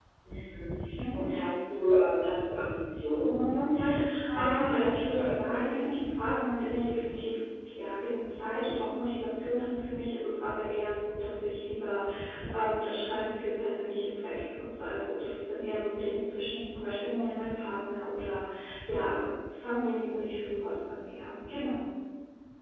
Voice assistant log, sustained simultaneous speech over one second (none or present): present